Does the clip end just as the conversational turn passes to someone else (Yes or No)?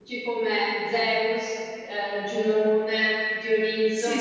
No